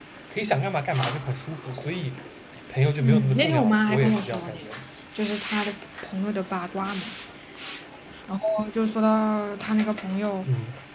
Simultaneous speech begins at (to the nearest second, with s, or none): 3 s